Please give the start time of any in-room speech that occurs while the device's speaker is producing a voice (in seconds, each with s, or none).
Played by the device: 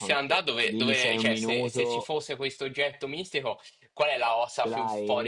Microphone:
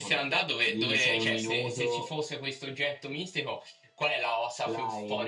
none